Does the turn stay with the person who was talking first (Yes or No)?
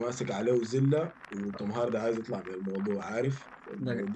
Yes